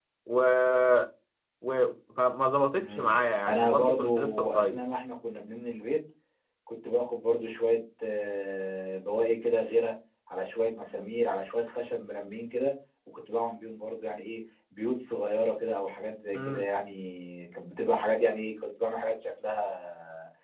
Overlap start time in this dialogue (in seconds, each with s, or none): 2.8 s